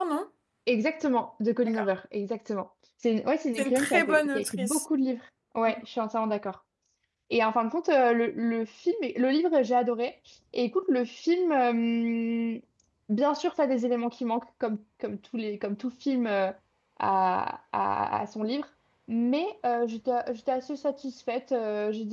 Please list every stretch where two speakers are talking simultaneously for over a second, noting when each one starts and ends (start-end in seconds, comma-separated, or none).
3.5-4.8